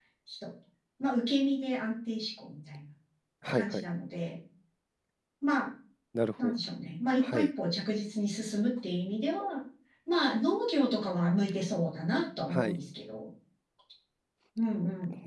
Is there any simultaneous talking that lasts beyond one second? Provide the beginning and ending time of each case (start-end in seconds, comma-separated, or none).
none